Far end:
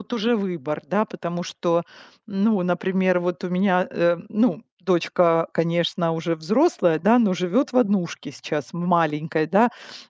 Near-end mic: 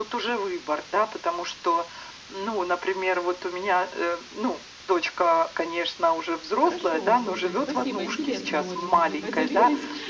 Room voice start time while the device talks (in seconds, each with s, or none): 6.6 s